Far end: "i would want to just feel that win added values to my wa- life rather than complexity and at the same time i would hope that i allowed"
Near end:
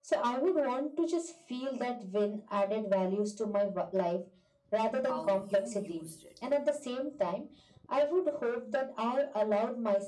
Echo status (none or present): present